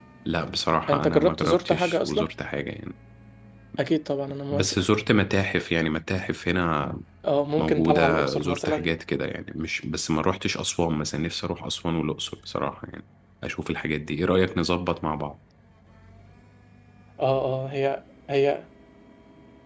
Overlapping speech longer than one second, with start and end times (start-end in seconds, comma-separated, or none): 0.9-2.3, 7.6-8.9